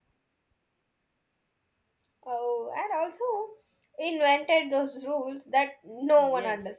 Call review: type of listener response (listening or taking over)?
taking over